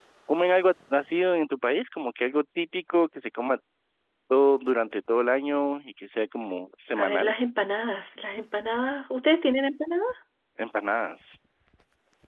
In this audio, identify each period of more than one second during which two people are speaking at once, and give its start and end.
none

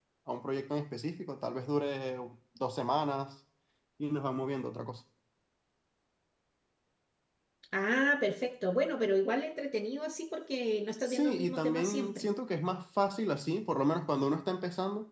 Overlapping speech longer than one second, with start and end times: 11.1-12.3

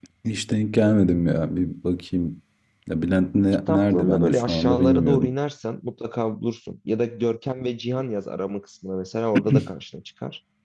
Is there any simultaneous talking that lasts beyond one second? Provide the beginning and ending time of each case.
3.7-5.3

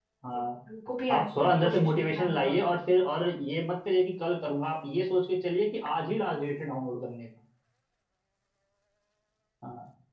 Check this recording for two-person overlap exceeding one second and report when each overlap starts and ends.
1.1-2.5

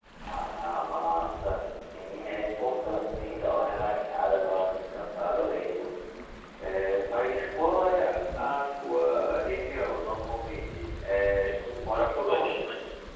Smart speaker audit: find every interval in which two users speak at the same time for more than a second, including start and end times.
11.1-12.7

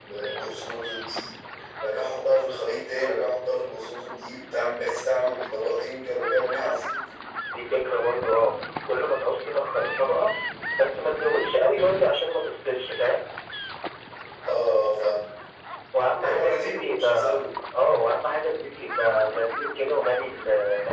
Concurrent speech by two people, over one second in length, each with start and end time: 16.2-17.5

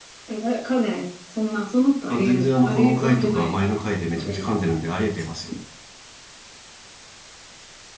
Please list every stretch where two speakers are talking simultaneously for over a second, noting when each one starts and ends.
2.1-3.6

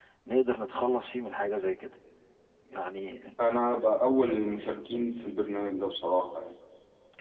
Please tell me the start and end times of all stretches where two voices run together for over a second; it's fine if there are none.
none

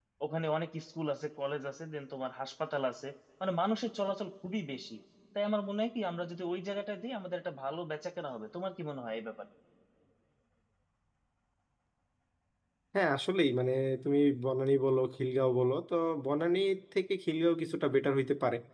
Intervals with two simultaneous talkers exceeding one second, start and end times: none

